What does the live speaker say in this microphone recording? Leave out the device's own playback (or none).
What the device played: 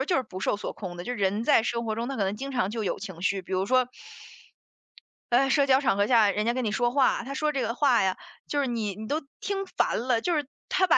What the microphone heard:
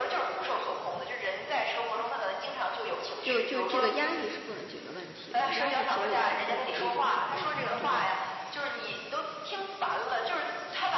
就就这个压抑是不能解决问题的，压抑其实也是控制的一种手段嘛，对吧？